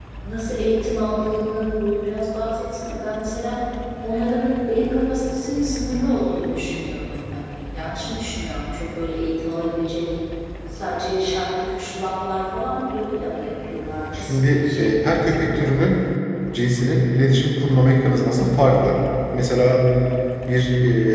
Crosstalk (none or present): present